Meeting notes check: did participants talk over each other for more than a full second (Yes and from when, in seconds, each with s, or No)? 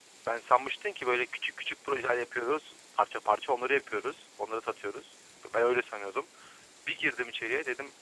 No